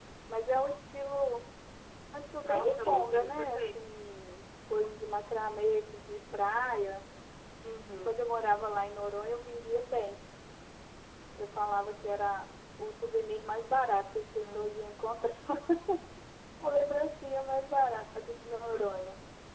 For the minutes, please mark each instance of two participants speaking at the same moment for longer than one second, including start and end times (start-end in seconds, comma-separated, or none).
2.4-3.8